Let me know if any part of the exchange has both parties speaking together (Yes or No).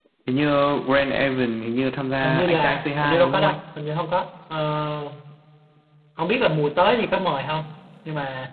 Yes